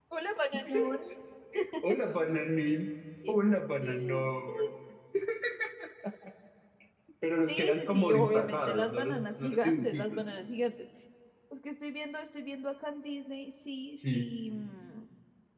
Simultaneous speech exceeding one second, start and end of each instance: 7.5-10.2

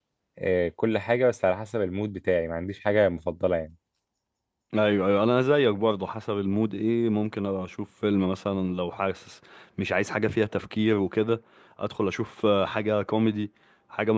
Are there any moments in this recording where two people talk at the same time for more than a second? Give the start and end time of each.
none

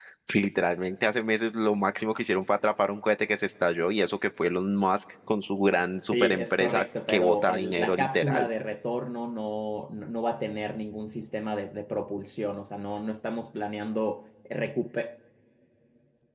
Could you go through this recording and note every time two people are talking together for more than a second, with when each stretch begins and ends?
6.1-8.5

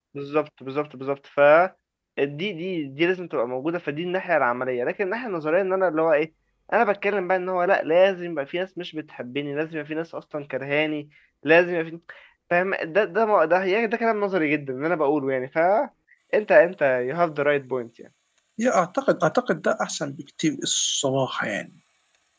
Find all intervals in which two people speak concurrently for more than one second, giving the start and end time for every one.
none

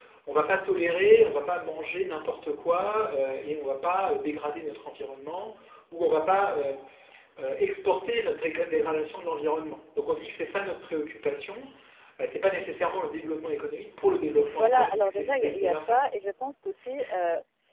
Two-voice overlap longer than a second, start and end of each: 14.5-16.0

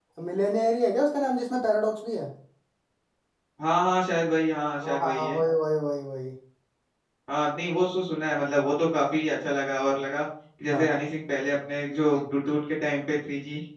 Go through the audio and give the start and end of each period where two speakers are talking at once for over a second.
none

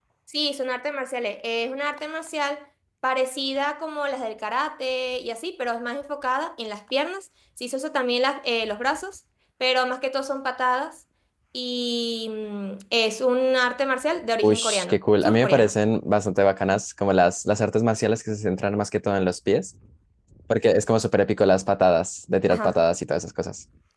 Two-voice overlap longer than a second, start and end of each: 14.4-15.8

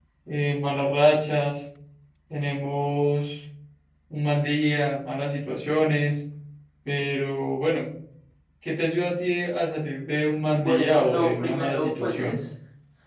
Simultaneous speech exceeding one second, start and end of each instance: 10.5-12.4

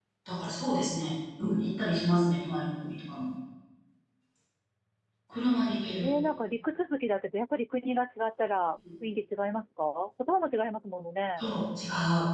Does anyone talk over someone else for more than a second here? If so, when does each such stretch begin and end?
none

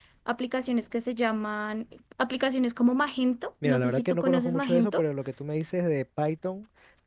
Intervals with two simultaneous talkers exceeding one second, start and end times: 3.6-5.0

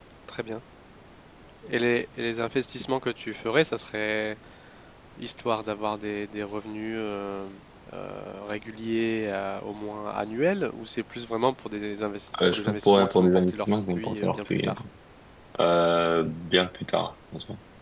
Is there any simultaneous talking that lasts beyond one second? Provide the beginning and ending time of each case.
12.5-14.7

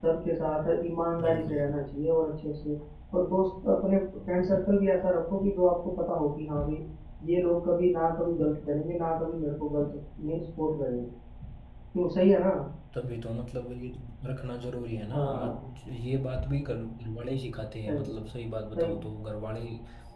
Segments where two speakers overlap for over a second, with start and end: none

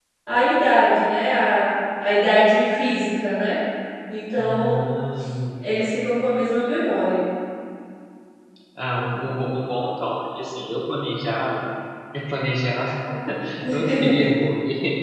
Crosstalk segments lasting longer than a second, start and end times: none

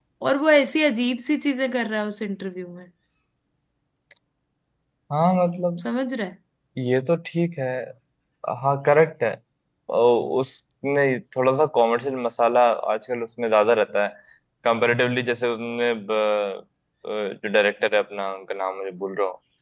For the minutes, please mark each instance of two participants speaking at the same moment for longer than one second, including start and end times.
none

